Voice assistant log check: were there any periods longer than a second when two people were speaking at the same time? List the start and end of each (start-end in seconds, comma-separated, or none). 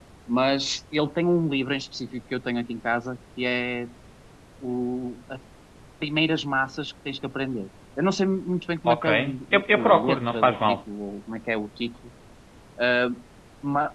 9.5-10.8